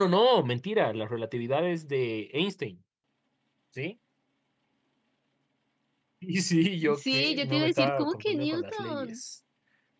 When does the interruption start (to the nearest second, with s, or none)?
7 s